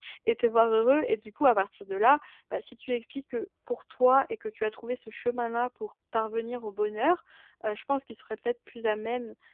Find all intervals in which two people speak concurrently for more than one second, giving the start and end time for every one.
none

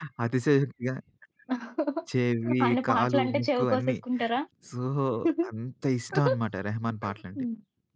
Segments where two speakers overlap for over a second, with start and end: 2.7-4.0

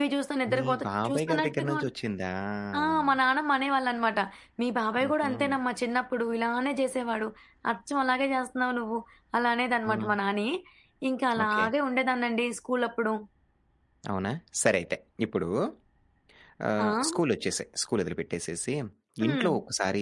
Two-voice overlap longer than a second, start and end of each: 0.5-1.8

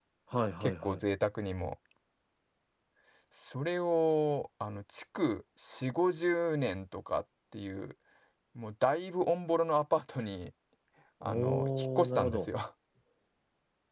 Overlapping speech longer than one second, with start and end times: 11.2-12.5

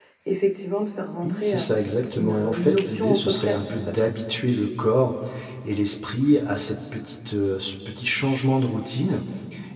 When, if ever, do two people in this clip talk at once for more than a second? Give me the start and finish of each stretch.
2.2-4.1

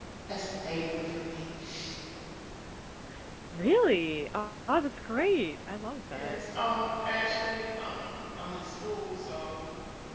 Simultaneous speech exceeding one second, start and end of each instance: none

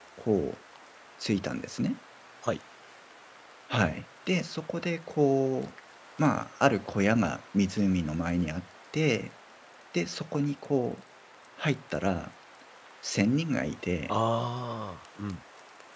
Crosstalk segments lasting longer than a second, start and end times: none

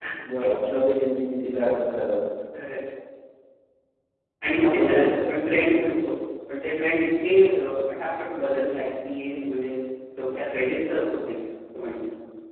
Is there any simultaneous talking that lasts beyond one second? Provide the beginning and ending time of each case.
4.6-5.8

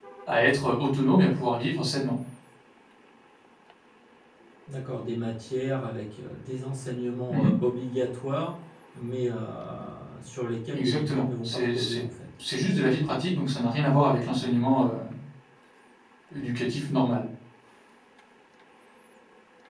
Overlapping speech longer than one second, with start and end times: 10.7-12.0

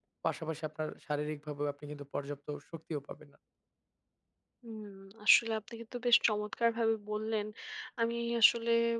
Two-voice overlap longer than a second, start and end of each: none

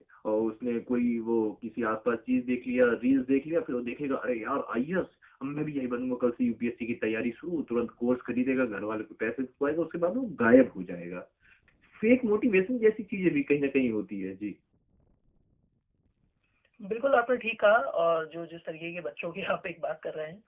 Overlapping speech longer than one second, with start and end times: none

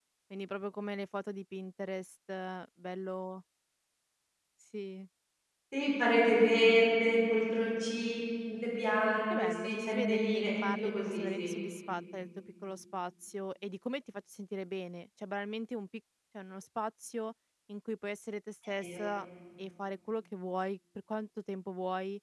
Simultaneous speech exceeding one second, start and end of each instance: 9.3-11.5

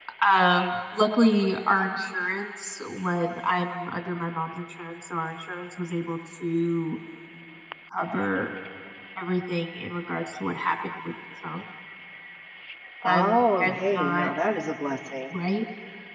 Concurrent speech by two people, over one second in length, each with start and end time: 13.0-14.3

